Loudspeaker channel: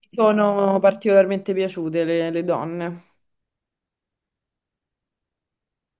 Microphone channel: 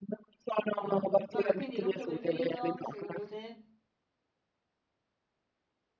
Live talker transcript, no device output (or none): Come no? Vabbè, quindi look preferito, secondo te?